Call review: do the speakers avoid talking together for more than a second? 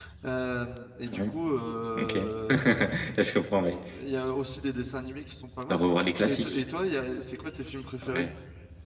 Yes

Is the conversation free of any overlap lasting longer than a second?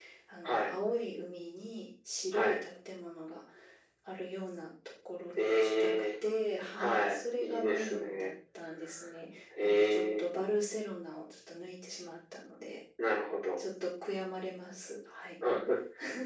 No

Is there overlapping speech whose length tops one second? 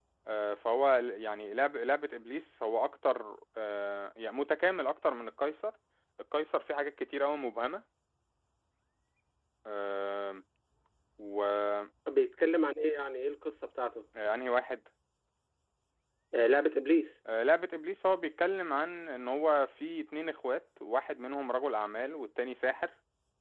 No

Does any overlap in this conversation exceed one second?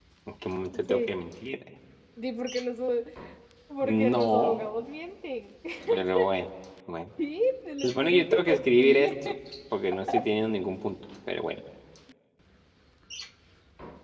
Yes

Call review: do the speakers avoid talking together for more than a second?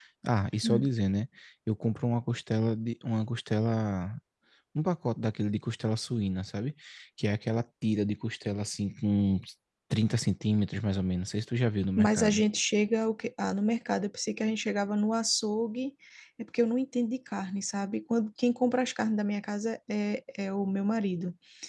Yes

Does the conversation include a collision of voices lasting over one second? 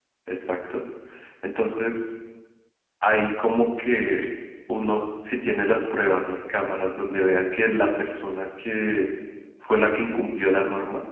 No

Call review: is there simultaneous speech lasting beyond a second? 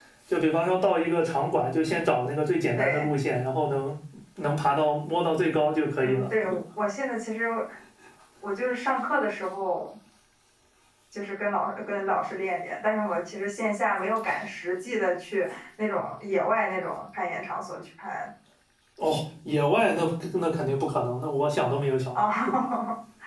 No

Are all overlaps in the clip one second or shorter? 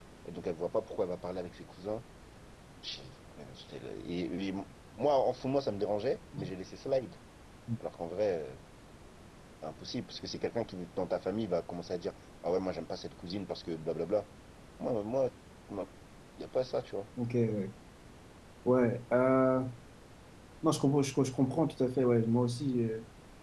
Yes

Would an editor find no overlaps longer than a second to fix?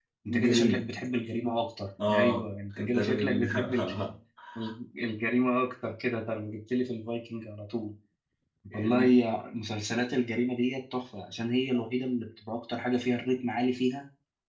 No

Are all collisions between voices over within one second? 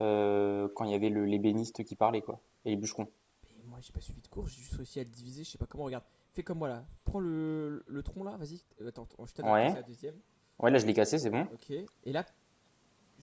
Yes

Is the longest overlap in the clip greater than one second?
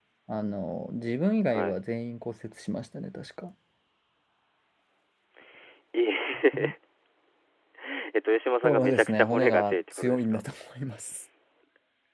Yes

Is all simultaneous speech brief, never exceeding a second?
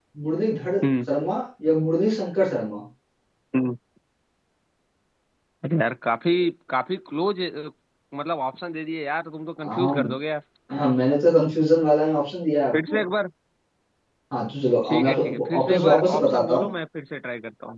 No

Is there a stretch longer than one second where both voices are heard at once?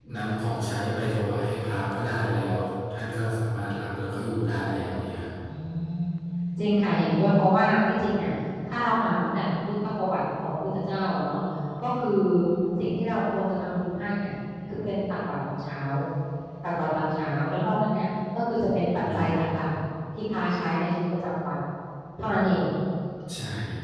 No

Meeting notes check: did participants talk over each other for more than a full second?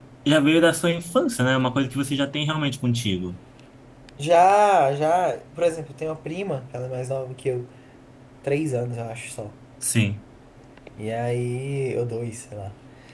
No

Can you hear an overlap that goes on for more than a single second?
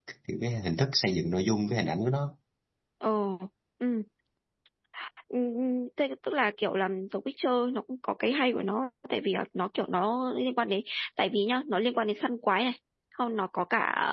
No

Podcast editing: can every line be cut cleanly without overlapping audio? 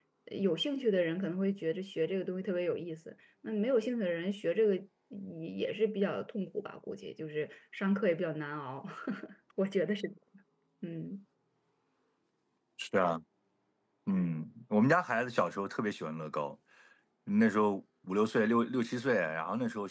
Yes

